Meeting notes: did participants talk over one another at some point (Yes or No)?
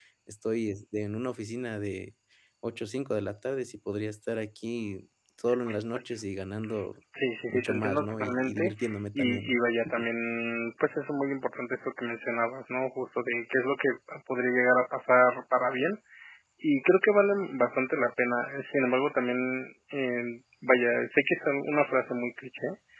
Yes